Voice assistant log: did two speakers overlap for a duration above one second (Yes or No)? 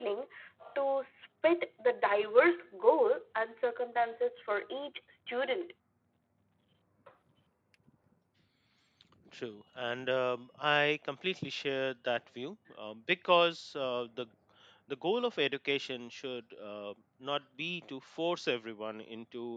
No